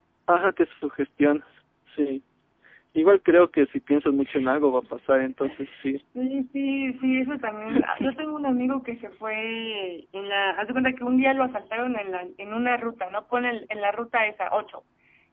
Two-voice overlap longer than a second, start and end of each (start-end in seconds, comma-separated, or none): none